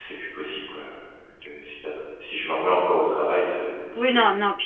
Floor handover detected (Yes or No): Yes